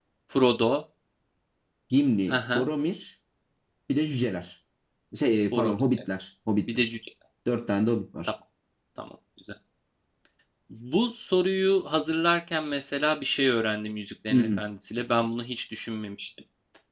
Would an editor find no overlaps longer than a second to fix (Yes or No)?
Yes